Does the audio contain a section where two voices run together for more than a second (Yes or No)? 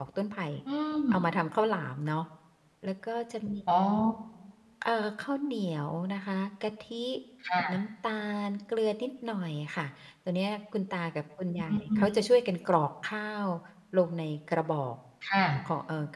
No